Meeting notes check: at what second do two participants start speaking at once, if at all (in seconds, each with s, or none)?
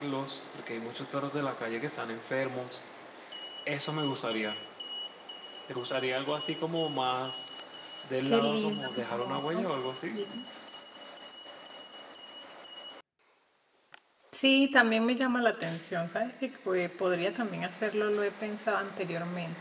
8.2 s